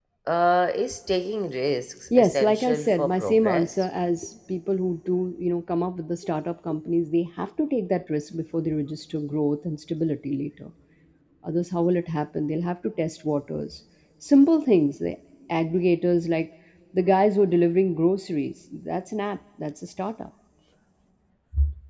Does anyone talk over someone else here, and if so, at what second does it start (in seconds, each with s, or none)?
2.1 s